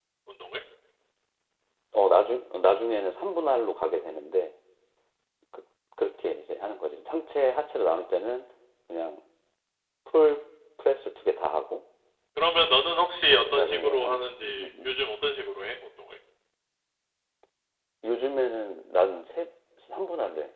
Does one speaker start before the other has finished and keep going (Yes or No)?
Yes